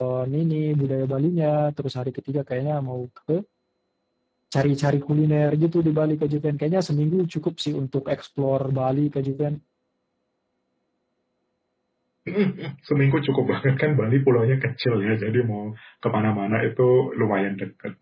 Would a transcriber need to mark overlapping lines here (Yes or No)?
No